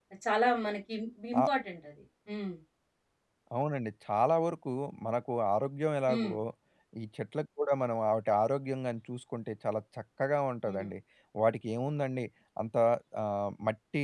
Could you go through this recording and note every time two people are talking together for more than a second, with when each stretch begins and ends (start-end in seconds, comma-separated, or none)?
none